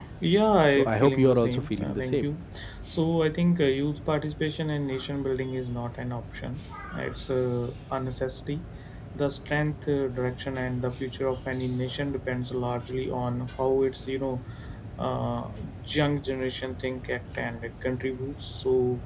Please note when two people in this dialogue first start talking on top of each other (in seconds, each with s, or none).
0.7 s